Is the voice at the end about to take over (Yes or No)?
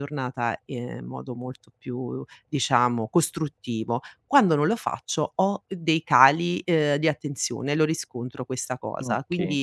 No